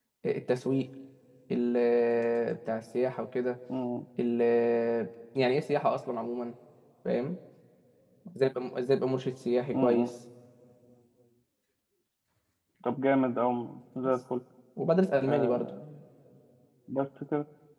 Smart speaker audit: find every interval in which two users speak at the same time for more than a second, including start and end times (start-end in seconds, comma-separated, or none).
none